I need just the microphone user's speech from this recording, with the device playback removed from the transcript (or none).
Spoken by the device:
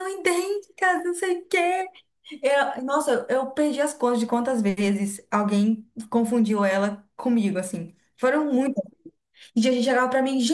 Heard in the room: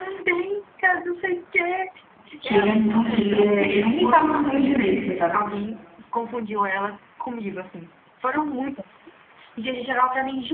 que ele é muito, ele é, ele nem fala português direito, coitado.